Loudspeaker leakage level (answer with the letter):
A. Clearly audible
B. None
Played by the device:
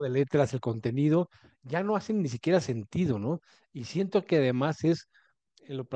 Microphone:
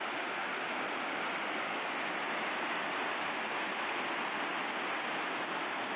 B